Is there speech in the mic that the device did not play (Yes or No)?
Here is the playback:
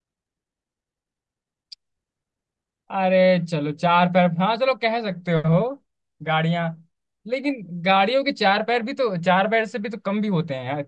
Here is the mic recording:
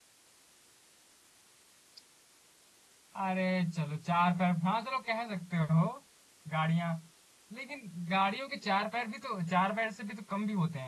No